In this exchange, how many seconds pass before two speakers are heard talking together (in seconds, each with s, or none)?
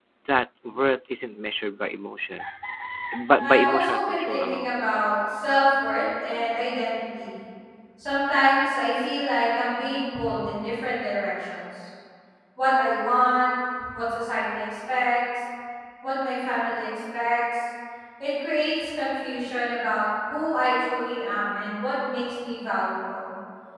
3.4 s